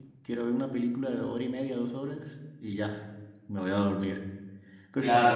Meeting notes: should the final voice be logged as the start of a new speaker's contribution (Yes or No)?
Yes